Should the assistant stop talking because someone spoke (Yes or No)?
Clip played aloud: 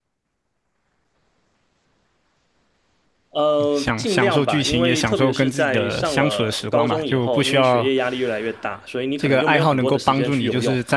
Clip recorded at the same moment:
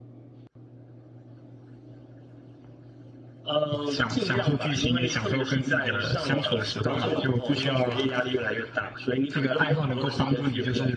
Yes